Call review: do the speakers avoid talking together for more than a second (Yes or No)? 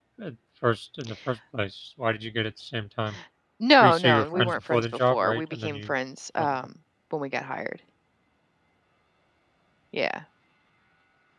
No